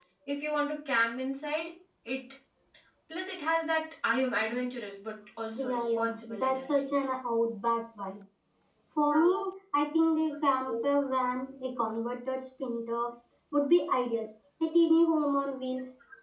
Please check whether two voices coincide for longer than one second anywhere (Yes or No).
Yes